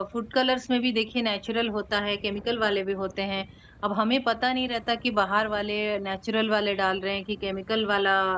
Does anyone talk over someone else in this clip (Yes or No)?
No